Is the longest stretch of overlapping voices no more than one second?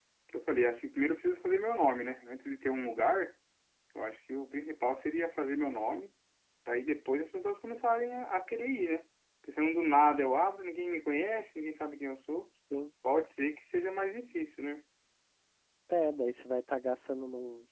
Yes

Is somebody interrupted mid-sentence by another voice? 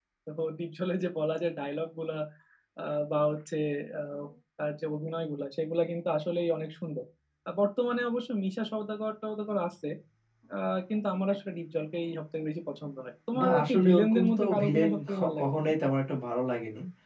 Yes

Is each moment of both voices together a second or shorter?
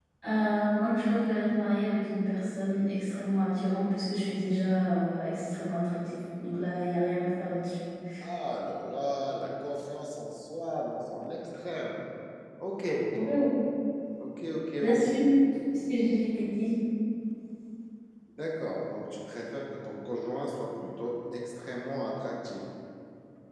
Yes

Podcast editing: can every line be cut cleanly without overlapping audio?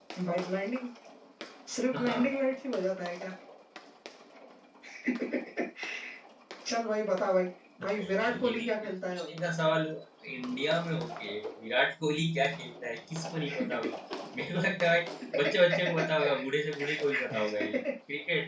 No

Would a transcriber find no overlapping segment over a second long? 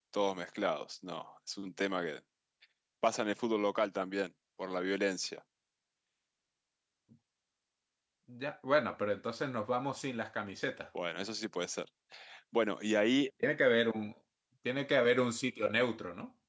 Yes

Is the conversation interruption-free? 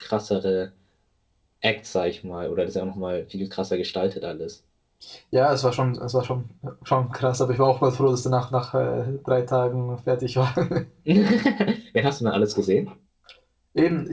Yes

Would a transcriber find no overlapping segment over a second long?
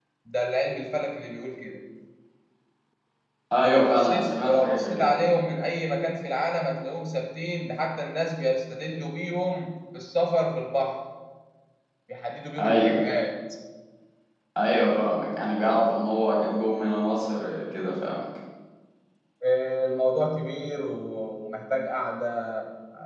No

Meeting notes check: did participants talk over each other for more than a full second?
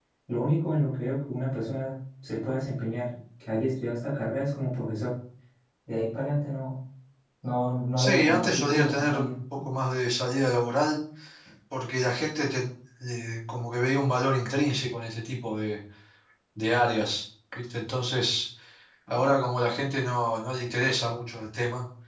Yes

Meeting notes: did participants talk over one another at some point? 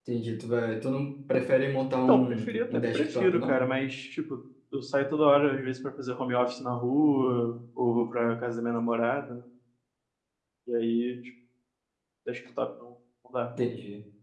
Yes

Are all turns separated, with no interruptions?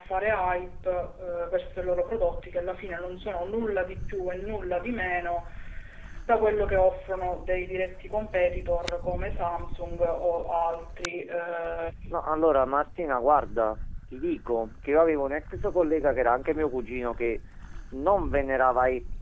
Yes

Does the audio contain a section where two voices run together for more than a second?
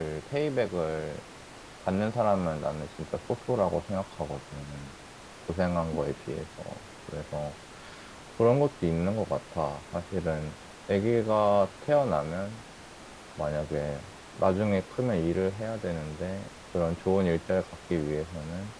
No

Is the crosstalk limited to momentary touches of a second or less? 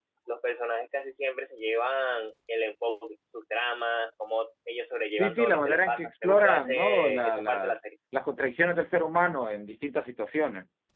No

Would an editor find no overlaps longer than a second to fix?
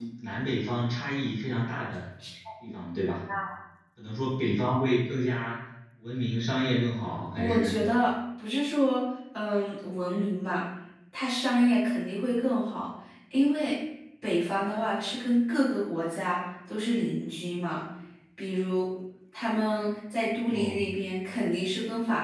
Yes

